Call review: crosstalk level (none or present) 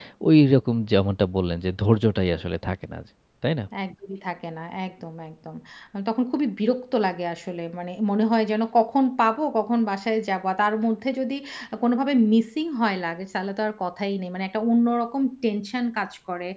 none